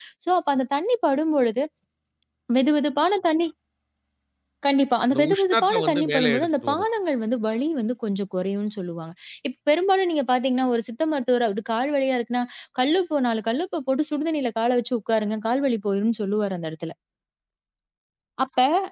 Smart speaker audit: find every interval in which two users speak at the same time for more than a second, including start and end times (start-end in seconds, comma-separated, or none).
5.1-6.9